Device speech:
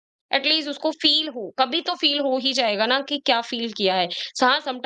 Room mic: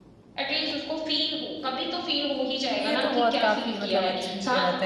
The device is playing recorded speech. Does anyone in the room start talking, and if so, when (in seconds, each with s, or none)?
2.8 s